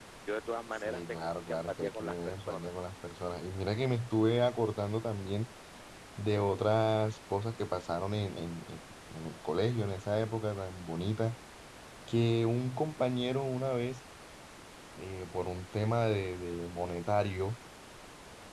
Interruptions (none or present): present